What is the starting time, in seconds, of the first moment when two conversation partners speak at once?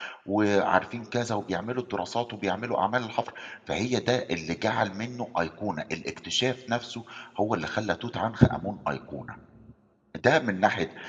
none

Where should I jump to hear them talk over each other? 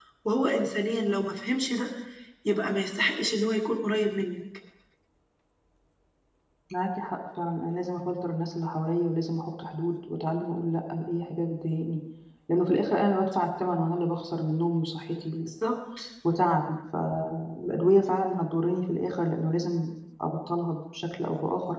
none

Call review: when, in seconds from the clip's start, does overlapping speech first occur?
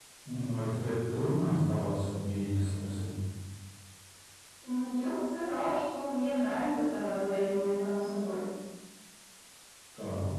none

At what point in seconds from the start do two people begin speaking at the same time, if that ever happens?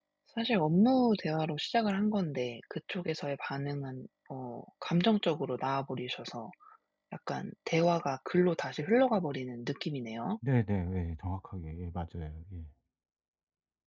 none

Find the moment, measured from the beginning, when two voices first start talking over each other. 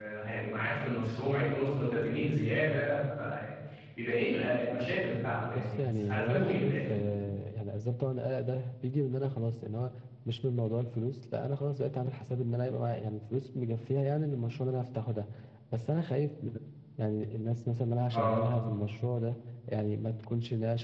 5.5 s

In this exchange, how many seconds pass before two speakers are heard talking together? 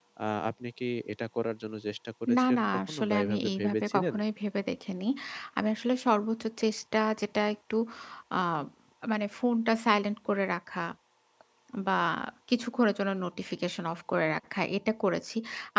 2.3 s

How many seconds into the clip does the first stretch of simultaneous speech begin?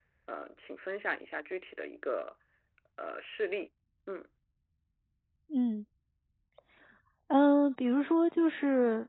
none

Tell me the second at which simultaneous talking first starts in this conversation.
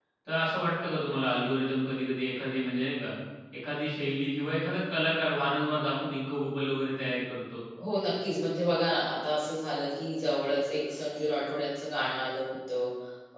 none

